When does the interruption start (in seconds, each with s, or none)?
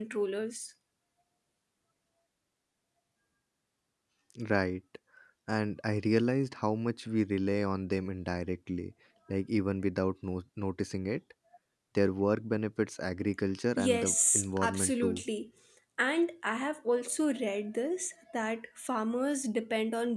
13.8 s